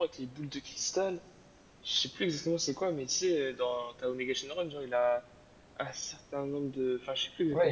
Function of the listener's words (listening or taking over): taking over